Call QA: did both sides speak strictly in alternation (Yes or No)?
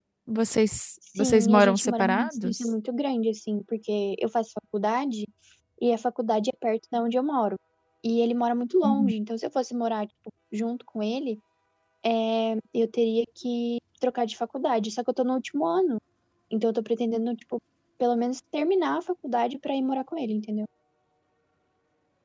No